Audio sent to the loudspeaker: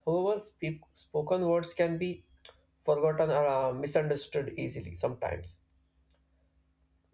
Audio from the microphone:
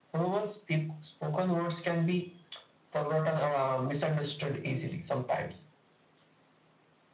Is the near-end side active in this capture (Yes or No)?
No